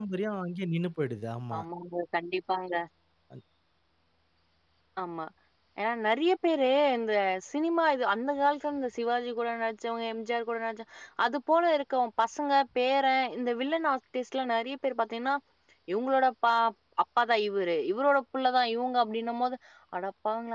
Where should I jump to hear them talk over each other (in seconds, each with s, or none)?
none